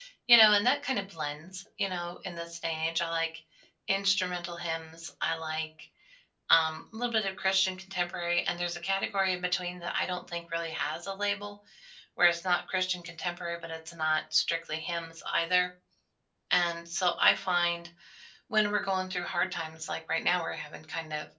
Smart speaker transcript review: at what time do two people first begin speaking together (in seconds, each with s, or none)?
none